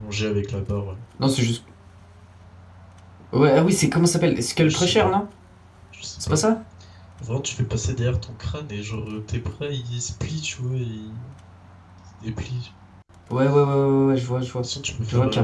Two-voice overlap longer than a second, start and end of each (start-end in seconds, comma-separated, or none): none